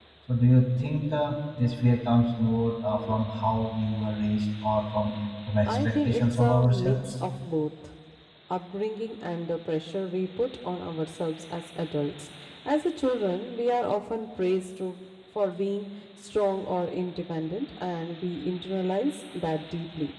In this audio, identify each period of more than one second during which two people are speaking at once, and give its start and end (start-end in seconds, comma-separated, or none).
5.7-7.0